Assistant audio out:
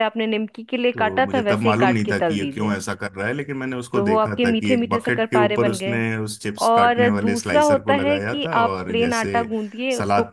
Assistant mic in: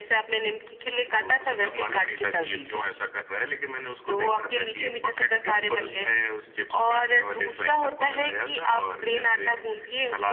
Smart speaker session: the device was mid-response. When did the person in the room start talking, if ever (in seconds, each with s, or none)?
none